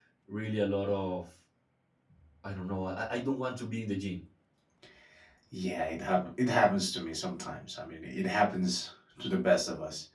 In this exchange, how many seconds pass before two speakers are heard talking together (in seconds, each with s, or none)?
none